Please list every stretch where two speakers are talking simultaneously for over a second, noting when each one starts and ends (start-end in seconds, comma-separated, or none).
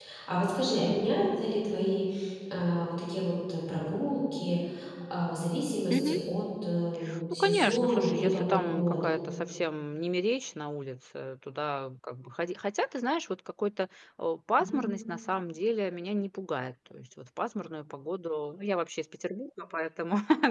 7.3-9.1